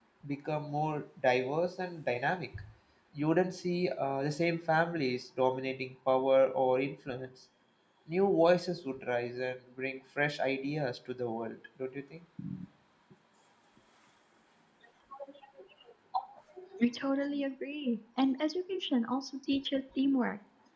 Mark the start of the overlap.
none

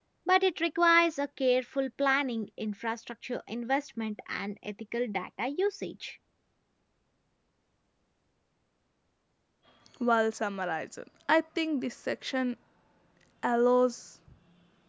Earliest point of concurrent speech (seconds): none

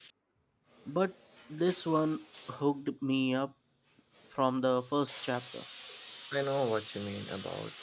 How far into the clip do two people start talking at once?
none

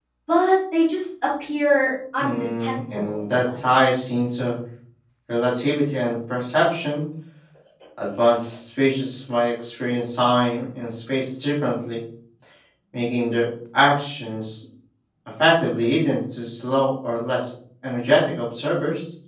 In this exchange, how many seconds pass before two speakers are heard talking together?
2.2 s

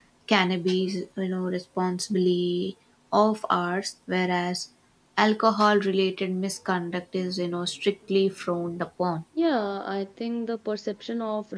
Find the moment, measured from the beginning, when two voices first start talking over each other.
none

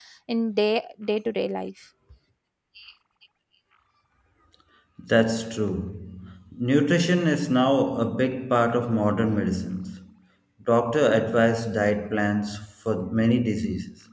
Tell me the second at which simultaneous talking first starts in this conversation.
none

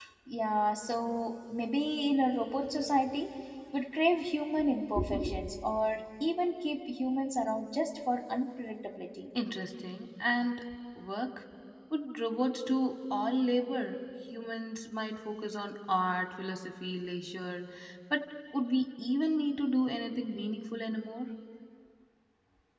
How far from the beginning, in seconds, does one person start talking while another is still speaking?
none

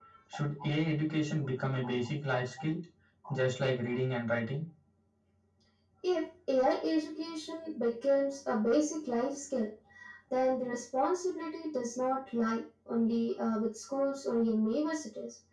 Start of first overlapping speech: none

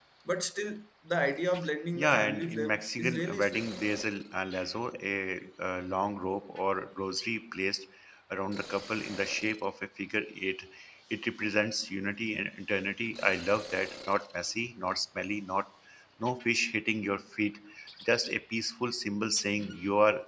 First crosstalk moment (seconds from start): 2.0 s

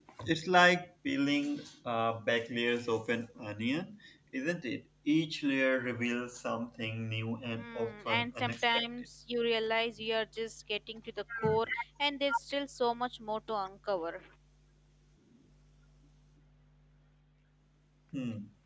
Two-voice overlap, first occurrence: 7.6 s

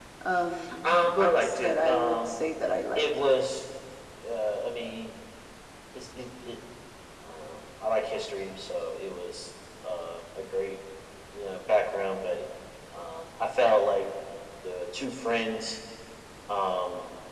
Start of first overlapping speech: 0.8 s

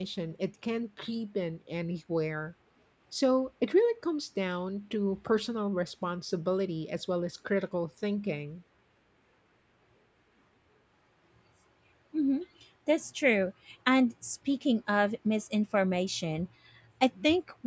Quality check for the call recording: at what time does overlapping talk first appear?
none

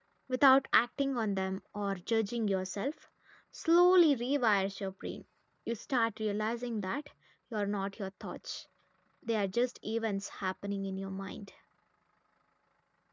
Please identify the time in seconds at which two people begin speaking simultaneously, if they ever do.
none

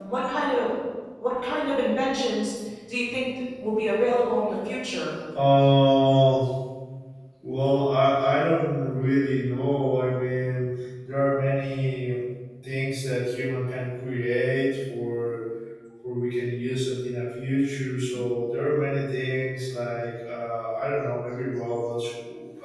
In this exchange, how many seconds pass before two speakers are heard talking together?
none

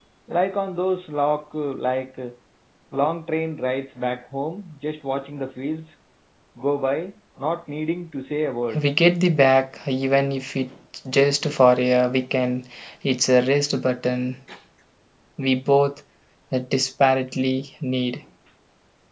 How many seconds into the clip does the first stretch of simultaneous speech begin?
none

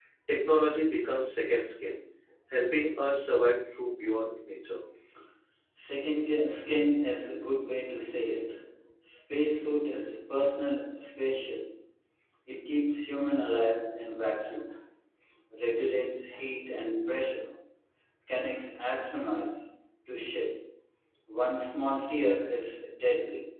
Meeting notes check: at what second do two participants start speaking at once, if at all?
none

